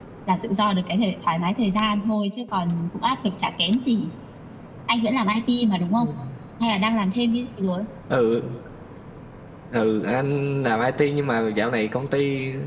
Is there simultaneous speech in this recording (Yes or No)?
No